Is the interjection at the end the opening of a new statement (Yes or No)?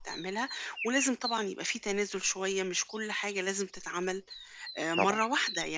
No